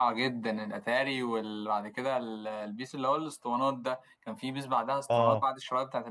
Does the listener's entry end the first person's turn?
No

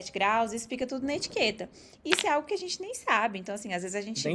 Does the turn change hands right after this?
No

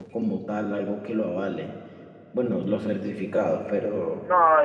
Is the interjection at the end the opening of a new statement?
Yes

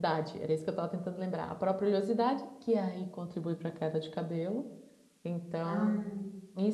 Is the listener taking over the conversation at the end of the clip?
No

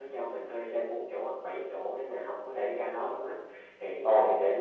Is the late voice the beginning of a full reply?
No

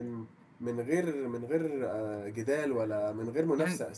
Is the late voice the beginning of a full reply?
Yes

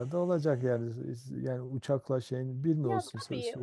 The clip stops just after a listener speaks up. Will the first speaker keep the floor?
No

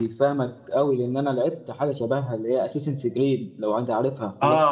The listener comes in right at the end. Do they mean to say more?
Yes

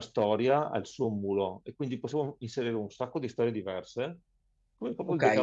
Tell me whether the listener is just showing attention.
No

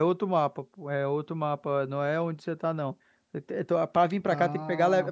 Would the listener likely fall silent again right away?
Yes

